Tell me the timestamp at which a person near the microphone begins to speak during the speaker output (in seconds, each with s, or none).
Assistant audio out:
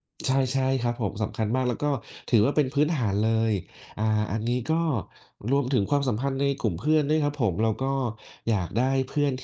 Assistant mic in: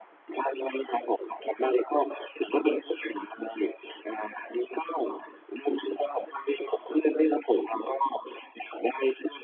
none